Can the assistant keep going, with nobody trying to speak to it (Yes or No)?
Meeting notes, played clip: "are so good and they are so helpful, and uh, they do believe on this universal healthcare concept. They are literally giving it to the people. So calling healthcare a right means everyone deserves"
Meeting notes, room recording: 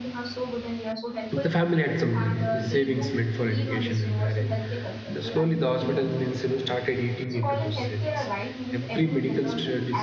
No